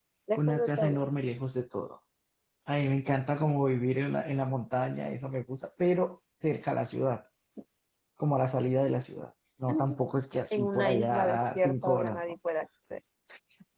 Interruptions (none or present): present